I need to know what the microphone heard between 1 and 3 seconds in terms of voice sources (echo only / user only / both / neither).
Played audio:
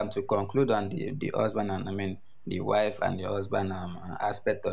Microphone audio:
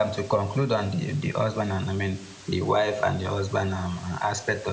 echo only